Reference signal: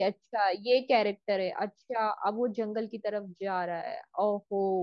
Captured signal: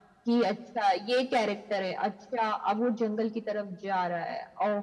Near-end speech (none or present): none